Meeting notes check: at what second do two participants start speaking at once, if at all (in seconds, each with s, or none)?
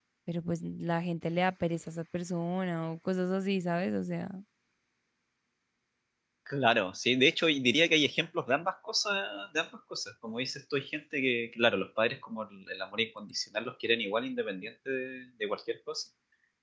none